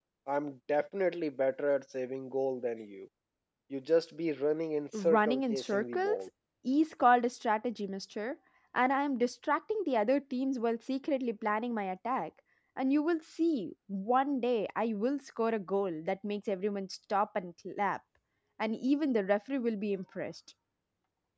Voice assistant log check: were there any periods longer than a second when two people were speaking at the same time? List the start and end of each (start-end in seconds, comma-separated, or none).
4.9-6.2